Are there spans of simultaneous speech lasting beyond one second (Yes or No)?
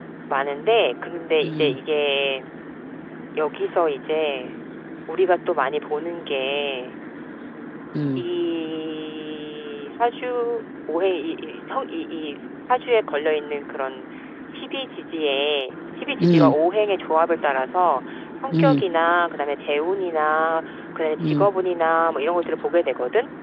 No